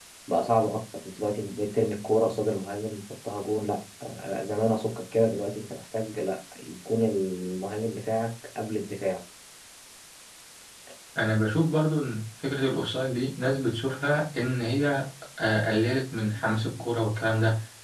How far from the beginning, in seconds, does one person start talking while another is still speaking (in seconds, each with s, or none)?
none